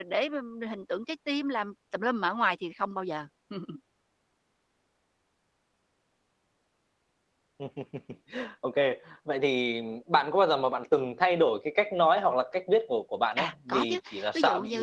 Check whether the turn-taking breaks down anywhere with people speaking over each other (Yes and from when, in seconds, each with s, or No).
Yes, from 13.4 s